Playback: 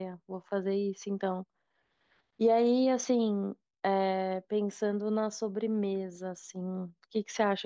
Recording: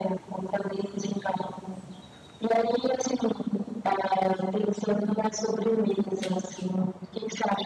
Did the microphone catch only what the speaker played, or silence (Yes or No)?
Yes